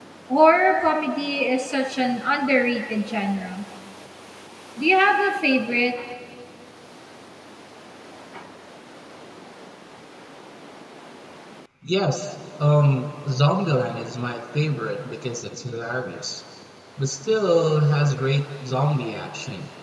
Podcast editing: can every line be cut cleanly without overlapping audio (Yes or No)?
Yes